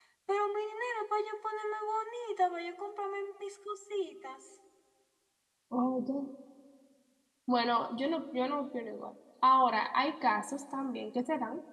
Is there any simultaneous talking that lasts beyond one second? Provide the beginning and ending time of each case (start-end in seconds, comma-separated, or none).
none